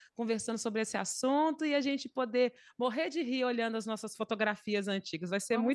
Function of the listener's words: taking over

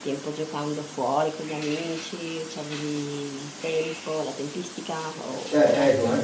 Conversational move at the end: taking over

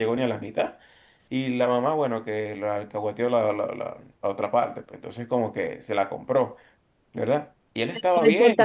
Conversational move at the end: taking over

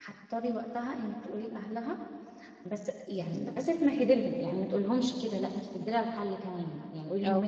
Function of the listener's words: listening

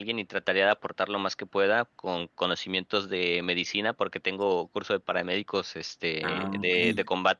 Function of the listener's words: listening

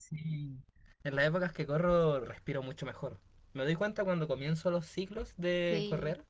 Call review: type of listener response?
listening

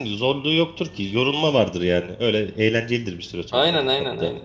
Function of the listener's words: taking over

